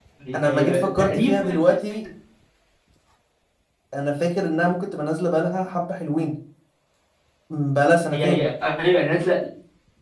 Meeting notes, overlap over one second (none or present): present